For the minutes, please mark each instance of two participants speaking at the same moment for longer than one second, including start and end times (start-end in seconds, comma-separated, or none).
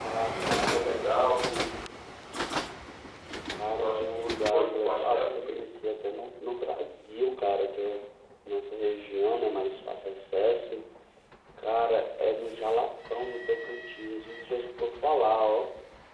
3.8-5.6